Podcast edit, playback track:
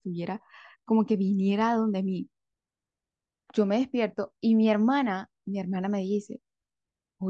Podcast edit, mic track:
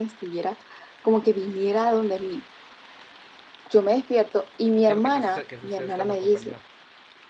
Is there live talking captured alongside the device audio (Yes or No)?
Yes